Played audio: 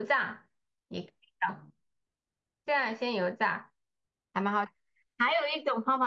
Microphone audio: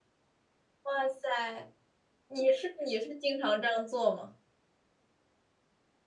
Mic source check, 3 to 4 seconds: user only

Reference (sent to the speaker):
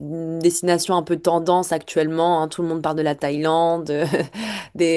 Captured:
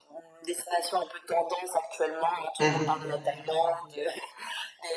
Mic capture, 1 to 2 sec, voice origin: echo only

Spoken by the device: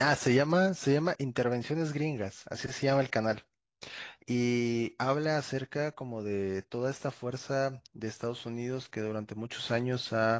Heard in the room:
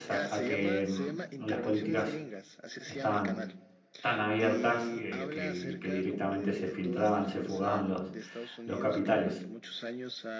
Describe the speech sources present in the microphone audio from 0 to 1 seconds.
both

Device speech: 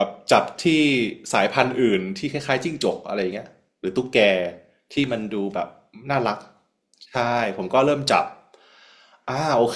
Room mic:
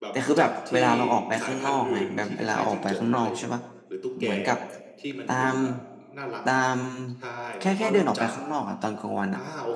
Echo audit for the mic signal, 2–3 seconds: both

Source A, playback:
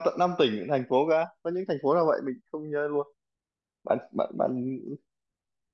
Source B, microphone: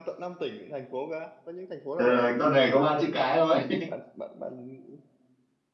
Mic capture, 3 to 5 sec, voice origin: both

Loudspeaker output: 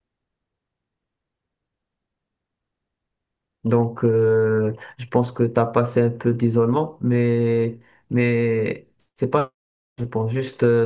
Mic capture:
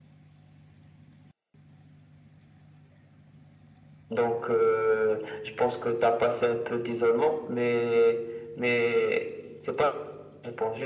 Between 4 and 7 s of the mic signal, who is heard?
echo only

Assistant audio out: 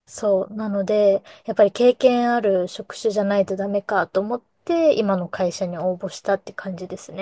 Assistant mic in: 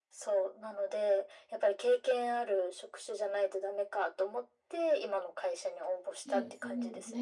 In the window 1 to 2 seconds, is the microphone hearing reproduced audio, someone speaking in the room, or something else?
echo only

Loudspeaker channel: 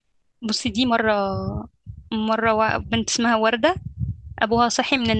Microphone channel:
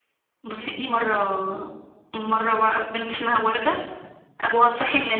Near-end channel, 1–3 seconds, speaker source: echo only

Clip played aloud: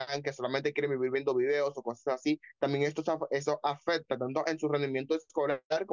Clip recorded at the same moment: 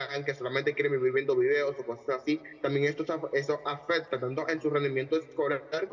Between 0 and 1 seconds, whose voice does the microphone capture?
echo only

